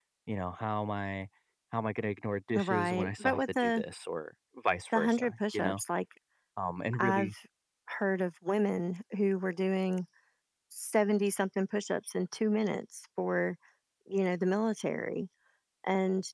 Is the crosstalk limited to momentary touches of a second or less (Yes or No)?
No